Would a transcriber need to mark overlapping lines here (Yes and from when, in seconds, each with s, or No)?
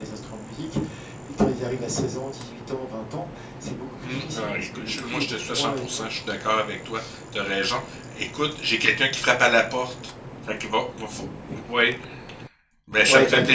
Yes, from 4.0 s